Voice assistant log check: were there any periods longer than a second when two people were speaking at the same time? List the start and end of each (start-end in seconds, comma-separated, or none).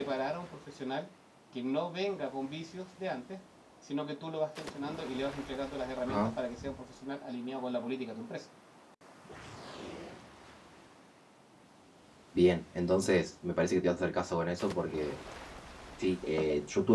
none